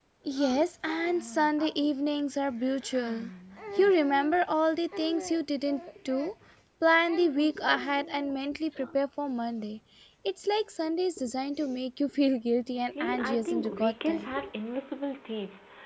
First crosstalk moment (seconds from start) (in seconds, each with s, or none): 12.9 s